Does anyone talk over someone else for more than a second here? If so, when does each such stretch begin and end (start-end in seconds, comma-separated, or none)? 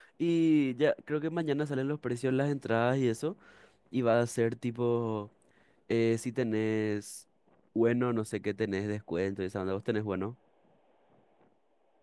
none